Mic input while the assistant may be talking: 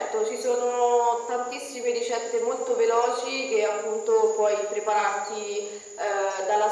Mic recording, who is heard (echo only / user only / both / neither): echo only